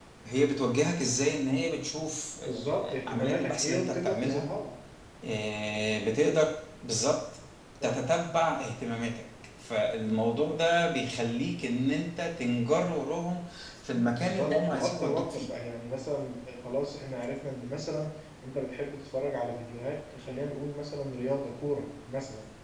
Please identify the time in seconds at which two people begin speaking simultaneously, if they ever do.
2.5 s

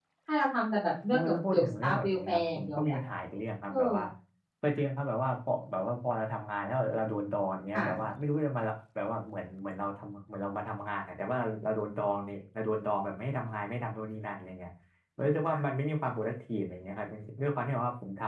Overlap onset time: 1.1 s

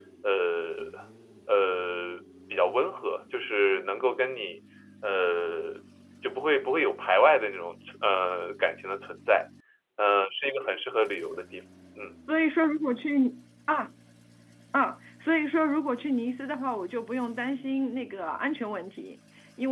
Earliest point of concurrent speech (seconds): none

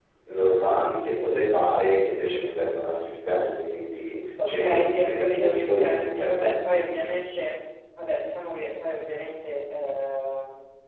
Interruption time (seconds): 4.4 s

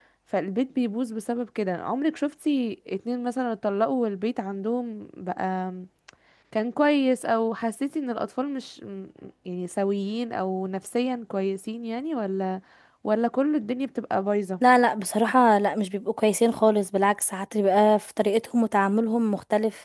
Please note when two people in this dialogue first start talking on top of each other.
none

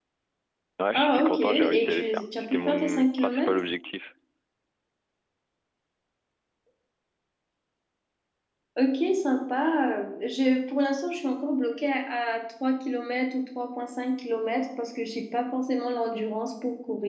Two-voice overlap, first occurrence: 0.9 s

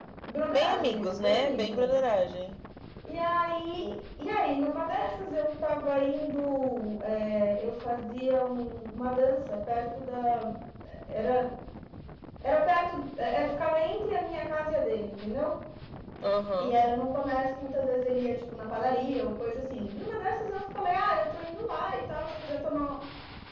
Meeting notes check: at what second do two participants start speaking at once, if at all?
0.5 s

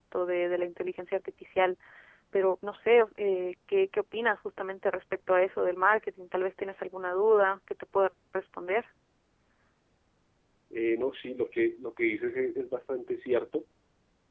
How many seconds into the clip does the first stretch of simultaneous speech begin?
none

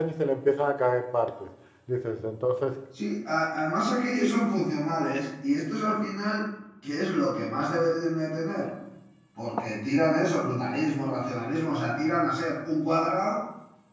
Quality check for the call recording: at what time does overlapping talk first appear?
none

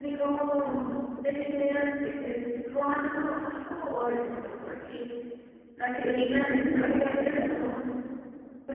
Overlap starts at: 6.0 s

